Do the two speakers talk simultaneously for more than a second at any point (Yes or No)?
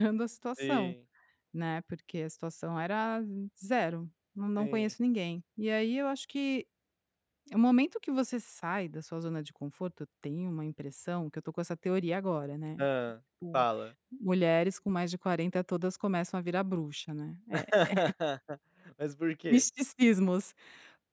No